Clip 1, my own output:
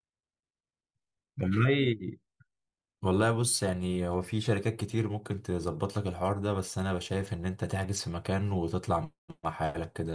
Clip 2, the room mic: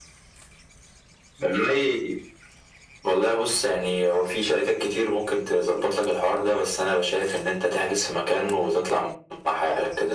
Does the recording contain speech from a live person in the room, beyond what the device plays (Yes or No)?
No